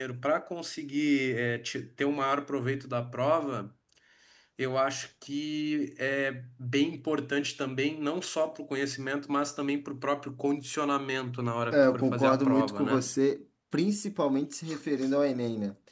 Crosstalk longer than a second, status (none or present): present